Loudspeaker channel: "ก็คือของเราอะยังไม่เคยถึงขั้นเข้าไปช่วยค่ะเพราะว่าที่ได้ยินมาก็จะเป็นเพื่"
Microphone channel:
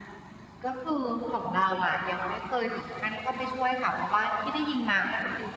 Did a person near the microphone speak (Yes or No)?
No